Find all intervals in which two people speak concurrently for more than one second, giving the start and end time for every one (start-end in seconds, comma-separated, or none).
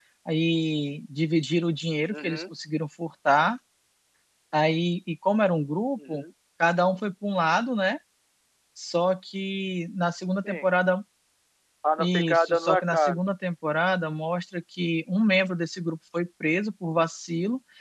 12.0-13.2